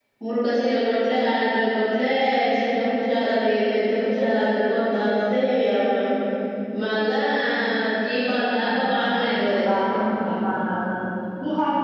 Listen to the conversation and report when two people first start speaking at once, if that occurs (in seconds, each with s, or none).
8.3 s